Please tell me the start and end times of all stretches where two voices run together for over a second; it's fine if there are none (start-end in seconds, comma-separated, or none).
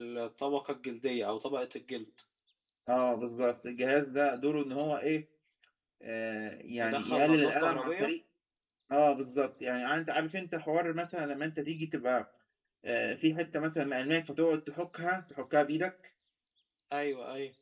6.8-8.1